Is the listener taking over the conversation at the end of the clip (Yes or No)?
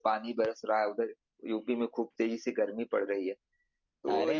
Yes